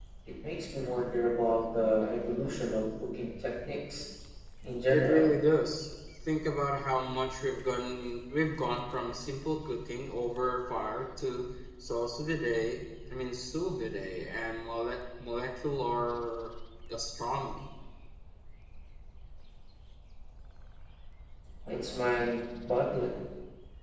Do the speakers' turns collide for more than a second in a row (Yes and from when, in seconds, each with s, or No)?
No